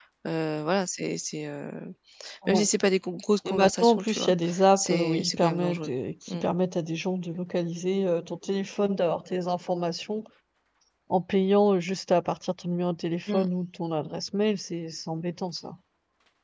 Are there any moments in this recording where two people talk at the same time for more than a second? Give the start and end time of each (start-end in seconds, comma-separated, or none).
3.5-5.9